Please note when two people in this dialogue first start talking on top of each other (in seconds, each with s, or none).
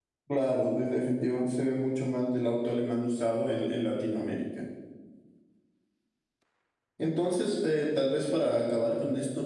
none